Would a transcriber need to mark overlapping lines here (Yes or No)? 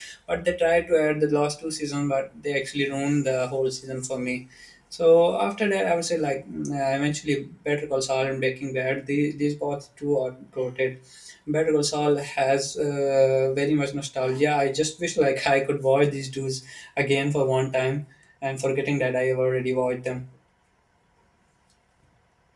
No